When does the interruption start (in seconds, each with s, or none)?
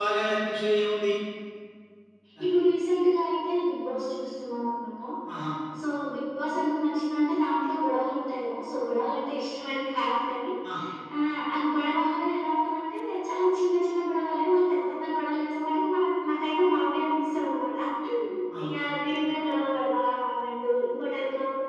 none